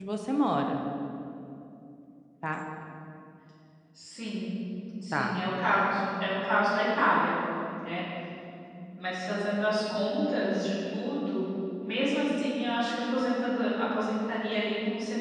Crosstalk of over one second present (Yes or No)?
No